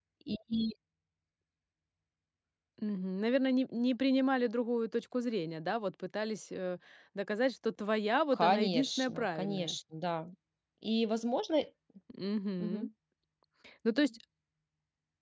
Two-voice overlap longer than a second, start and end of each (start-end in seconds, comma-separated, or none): 8.3-9.8